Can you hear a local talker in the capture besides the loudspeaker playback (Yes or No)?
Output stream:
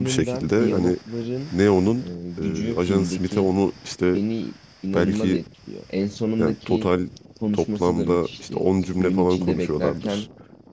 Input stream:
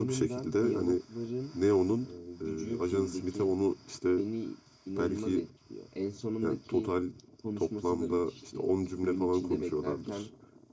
No